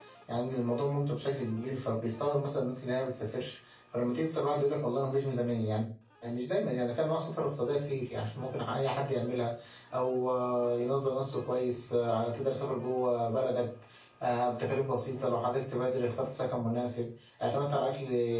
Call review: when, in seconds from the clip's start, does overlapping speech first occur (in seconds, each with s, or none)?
none